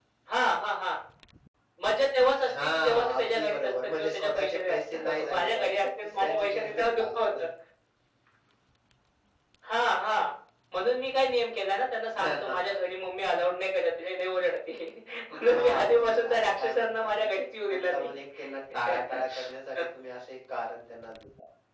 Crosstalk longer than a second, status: present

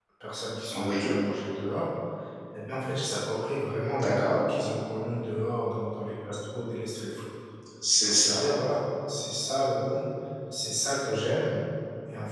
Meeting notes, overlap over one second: none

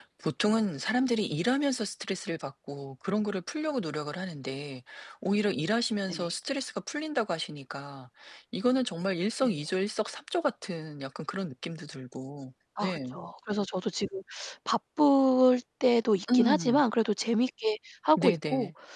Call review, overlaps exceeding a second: none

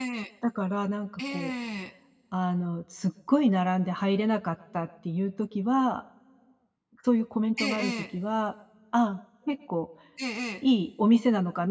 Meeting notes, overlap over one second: none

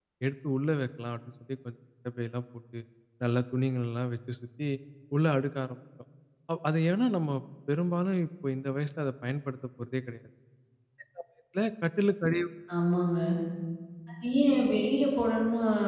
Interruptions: none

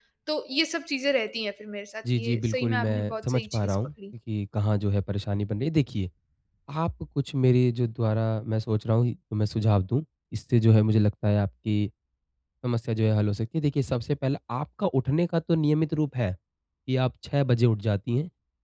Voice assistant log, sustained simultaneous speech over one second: present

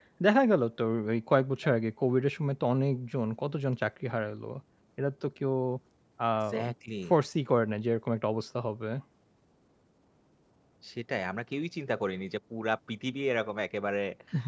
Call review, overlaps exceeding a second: none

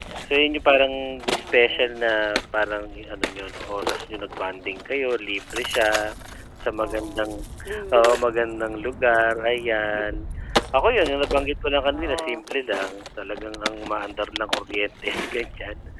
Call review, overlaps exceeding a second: none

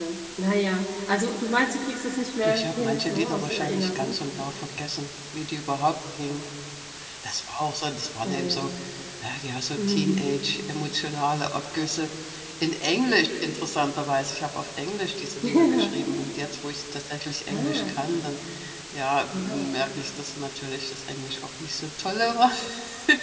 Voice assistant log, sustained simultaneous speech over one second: present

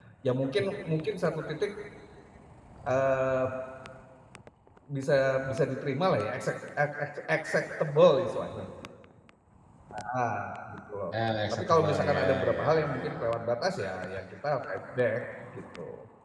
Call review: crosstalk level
present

